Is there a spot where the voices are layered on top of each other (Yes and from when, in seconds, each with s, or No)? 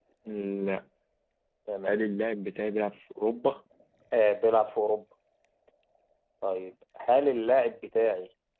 No